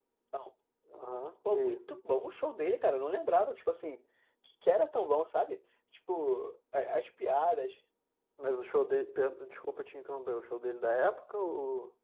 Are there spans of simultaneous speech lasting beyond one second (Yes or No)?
No